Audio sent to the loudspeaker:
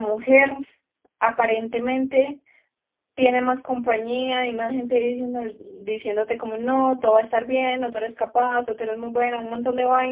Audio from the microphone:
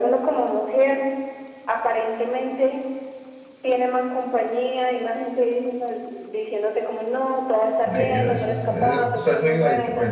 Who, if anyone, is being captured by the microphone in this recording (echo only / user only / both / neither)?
both